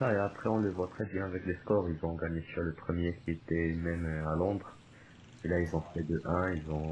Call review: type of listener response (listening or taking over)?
listening